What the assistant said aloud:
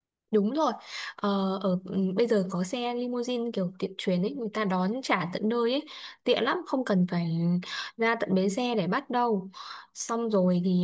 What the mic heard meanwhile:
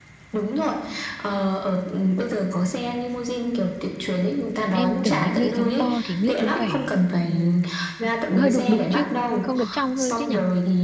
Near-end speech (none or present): present